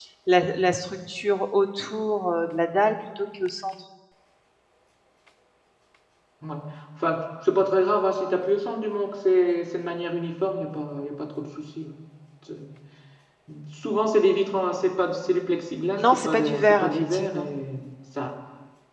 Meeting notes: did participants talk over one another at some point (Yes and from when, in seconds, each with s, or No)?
Yes, from 16.0 s